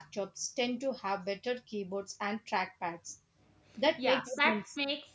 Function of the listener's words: taking over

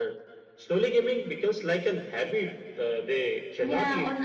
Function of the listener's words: taking over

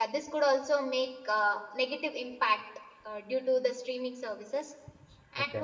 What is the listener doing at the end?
listening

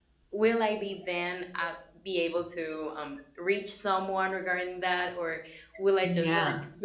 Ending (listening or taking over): listening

